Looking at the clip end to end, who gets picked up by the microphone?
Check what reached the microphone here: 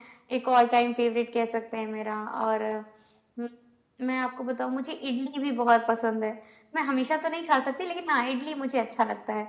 echo only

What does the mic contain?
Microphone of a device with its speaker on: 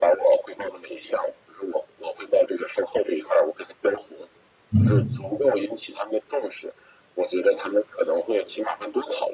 both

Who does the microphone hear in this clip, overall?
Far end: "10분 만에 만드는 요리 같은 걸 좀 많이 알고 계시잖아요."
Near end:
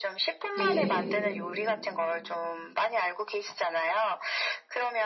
both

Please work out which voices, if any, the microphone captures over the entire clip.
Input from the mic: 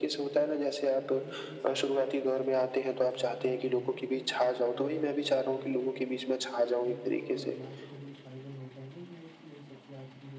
both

